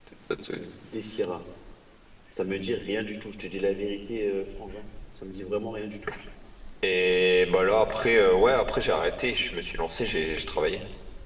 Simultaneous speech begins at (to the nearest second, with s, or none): none